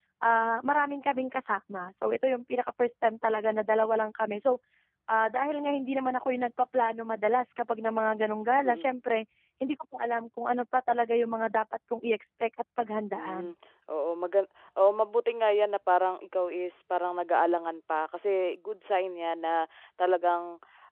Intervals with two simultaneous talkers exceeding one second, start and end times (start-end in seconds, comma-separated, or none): none